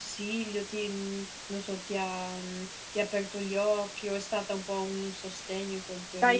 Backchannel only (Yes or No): No